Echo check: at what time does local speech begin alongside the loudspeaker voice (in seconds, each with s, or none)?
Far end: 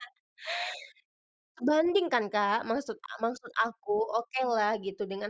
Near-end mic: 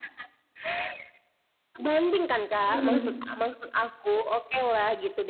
2.7 s